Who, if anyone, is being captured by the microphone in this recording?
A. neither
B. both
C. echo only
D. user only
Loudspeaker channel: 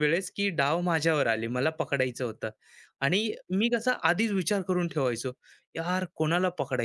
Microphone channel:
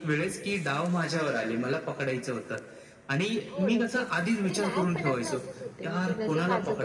B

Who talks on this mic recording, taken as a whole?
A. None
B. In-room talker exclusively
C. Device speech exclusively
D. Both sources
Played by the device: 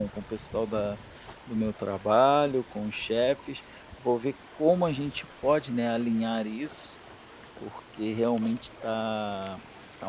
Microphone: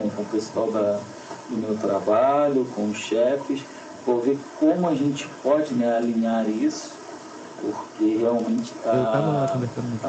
D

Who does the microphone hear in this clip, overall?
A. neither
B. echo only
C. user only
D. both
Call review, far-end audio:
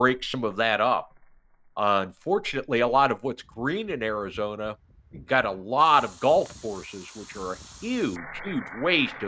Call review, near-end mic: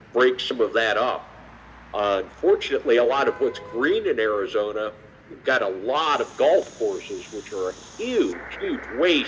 B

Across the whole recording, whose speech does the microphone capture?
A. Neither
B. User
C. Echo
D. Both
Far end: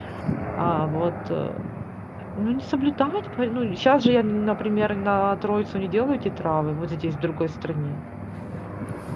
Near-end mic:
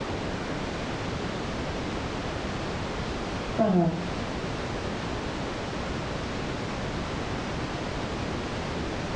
B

